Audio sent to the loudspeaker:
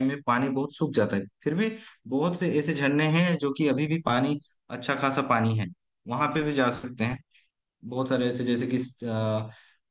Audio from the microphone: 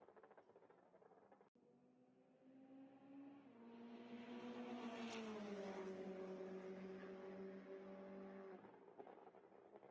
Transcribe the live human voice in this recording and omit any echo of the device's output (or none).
none